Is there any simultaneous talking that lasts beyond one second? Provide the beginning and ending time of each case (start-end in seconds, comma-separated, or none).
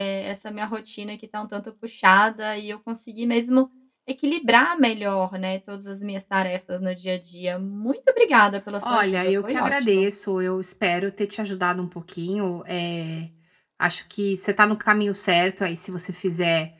8.8-10.1